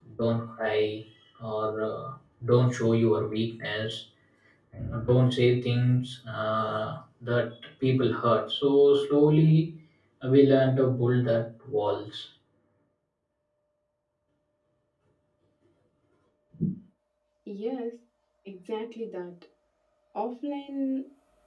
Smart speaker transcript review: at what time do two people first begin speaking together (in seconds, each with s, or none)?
none